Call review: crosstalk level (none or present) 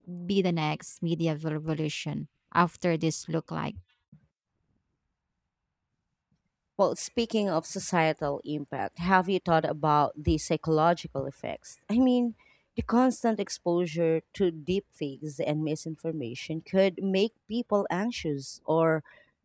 none